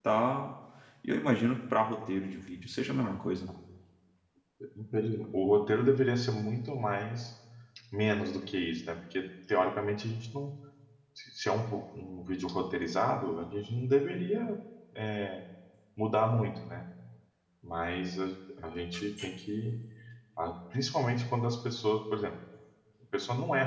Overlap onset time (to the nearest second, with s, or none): none